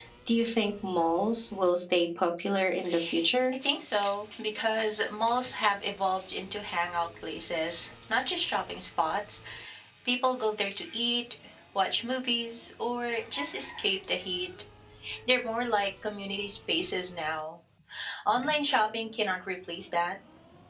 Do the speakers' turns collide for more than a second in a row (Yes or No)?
No